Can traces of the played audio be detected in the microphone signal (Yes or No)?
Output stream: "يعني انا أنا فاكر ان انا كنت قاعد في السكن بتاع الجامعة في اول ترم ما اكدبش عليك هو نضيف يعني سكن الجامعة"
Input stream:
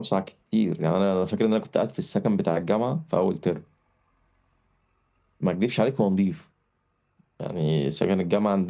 Yes